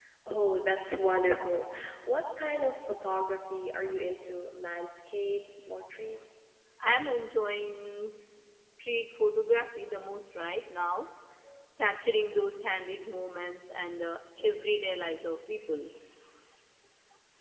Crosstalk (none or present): none